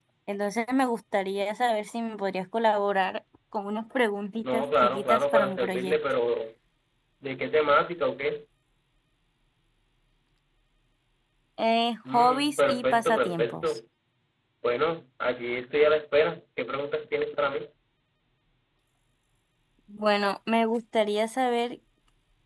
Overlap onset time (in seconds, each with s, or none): 4.4 s